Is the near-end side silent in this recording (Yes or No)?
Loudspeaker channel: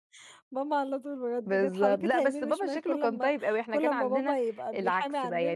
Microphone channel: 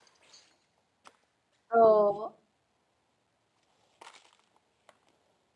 No